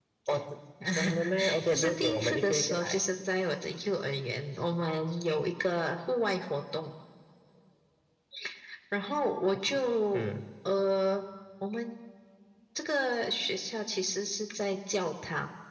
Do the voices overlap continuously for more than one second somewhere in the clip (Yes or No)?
Yes